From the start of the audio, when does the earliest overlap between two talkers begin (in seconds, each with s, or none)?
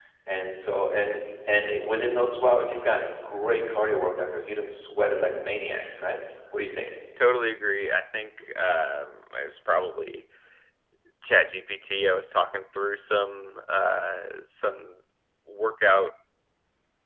none